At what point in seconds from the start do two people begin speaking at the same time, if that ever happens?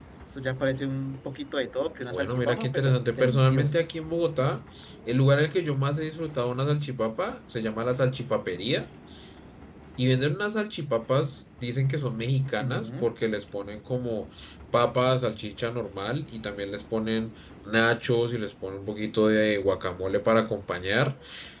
2.1 s

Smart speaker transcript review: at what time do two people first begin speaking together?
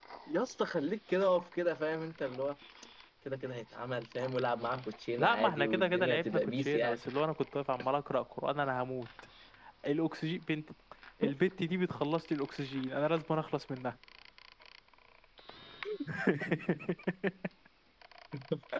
5.2 s

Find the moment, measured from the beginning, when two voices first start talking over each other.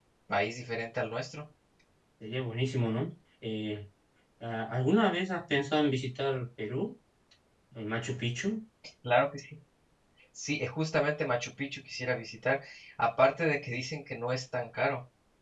none

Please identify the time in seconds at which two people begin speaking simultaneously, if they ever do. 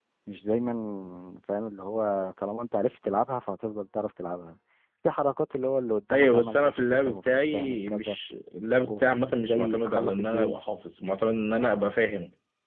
6.1 s

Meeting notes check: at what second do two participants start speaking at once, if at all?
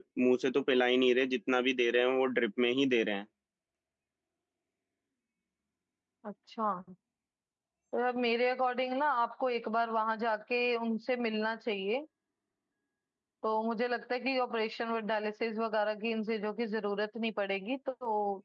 none

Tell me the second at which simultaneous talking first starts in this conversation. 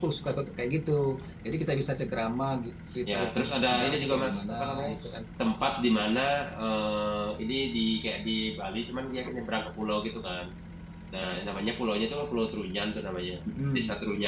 3.1 s

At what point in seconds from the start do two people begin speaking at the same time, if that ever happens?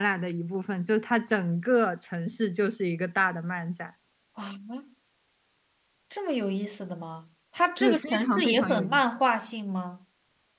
7.8 s

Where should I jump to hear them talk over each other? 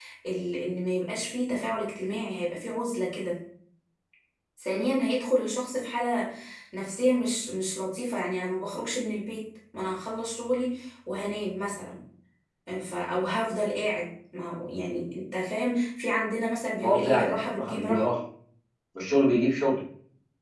16.8 s

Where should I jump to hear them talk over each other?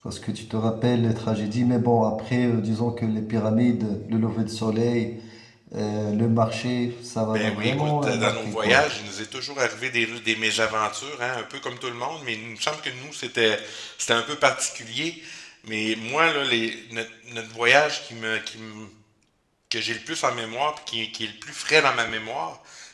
7.3 s

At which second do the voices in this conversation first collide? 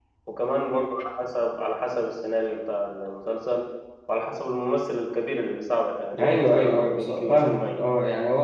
6.1 s

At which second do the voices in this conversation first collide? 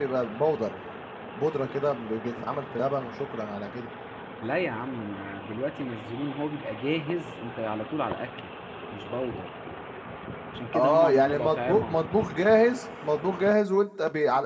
10.7 s

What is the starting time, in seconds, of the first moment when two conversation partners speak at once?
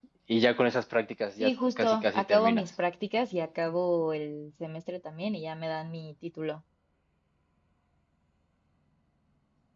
1.4 s

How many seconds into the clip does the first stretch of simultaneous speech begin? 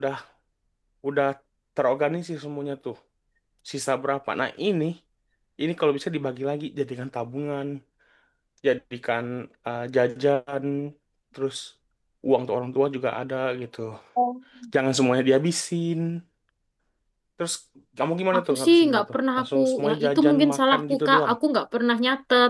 18.4 s

